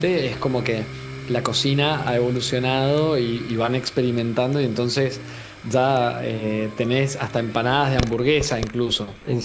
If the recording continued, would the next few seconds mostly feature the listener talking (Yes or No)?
No